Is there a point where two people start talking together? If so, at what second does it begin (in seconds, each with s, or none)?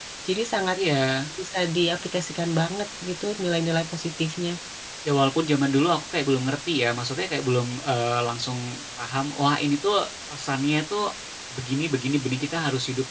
none